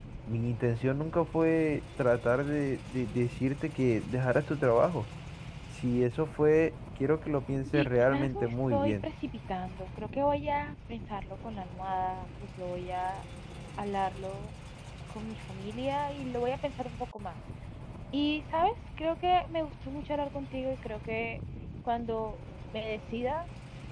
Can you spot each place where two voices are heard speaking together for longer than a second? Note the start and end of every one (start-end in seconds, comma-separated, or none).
7.7-9.1